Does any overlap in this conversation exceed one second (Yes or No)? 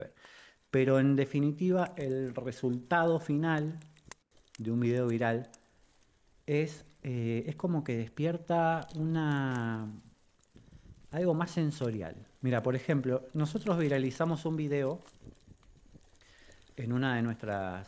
No